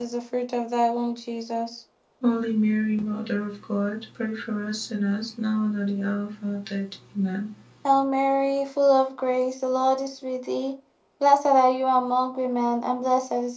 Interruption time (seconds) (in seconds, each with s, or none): none